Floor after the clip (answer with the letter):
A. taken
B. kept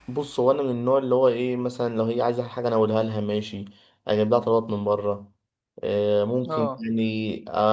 B